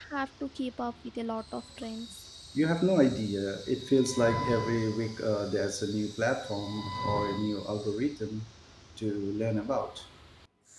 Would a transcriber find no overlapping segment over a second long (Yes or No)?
Yes